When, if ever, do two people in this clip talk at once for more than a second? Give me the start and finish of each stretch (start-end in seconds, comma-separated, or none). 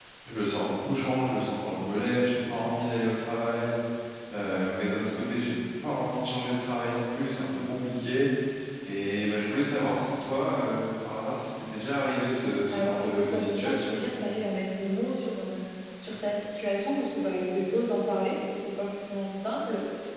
12.7-14.0